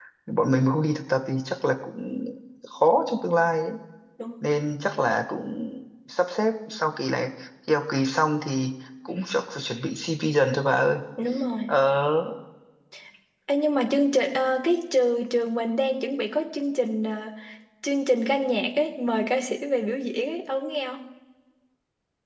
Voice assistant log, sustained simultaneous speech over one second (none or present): none